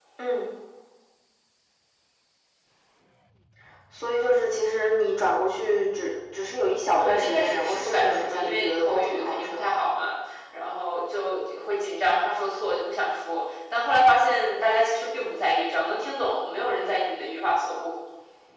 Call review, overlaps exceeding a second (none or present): present